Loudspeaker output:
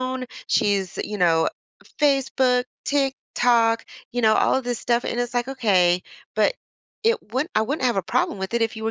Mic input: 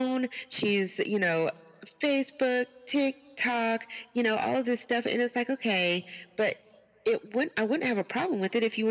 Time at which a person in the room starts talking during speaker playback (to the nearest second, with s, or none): none